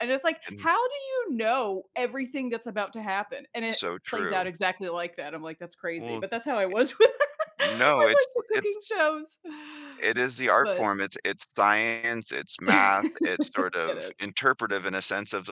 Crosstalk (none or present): present